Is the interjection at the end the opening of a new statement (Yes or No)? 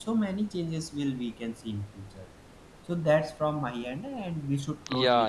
Yes